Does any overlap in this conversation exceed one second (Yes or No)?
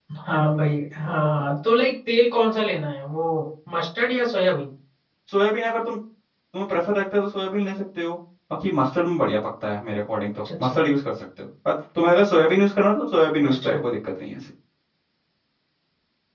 No